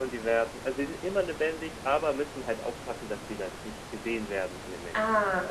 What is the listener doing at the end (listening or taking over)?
taking over